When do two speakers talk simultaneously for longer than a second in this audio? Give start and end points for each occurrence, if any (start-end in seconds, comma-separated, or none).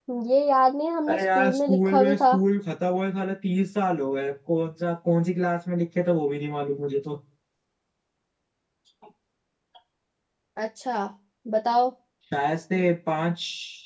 1.1-2.4